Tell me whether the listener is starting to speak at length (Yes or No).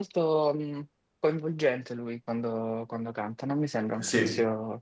No